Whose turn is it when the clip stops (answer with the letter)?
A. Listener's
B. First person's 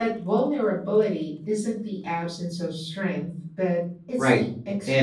A